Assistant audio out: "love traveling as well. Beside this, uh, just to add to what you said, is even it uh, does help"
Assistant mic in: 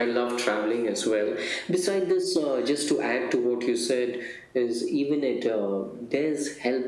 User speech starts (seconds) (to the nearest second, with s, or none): none